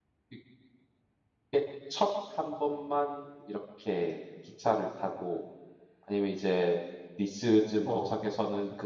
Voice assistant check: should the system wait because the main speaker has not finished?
Yes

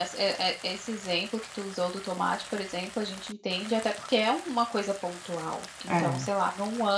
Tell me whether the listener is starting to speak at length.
No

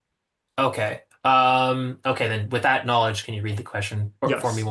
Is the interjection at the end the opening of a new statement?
Yes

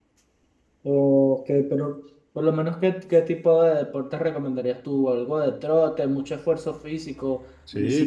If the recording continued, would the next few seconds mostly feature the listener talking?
Yes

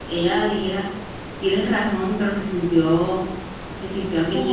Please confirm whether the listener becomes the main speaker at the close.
No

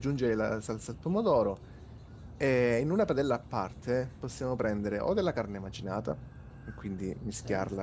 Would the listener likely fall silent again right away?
Yes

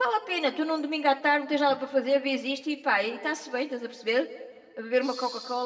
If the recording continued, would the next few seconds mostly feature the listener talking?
Yes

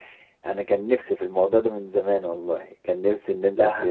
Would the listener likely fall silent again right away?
Yes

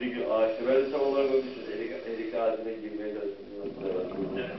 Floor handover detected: Yes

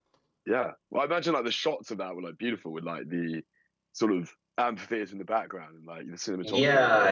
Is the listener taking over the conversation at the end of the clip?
Yes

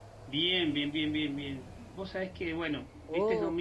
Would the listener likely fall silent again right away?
Yes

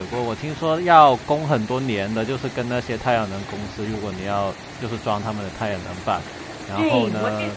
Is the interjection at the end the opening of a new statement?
Yes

